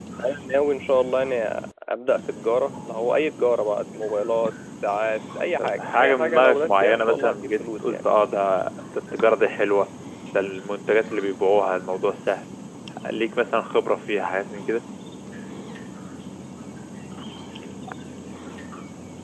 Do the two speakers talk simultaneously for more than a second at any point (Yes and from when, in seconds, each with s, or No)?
Yes, from 5.6 s